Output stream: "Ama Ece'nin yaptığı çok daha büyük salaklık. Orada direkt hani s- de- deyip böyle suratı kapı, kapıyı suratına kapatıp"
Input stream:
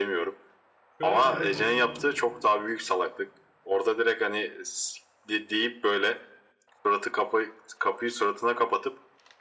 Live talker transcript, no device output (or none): şöyle bir durum var.